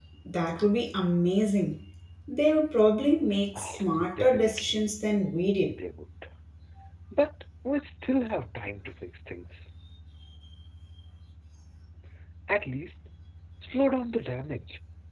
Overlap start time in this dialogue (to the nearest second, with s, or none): 4 s